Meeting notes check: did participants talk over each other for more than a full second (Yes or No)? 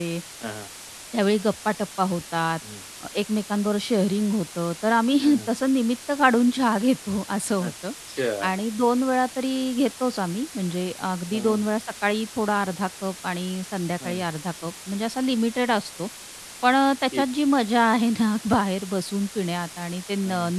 No